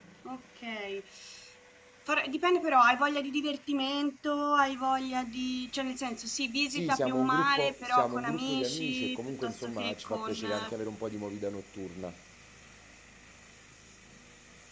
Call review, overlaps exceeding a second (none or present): present